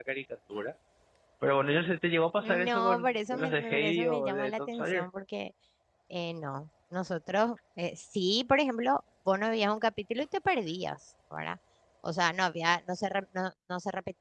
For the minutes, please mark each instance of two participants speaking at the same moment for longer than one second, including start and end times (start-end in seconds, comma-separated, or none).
2.4-5.0